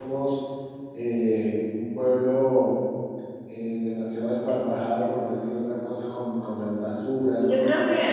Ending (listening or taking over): taking over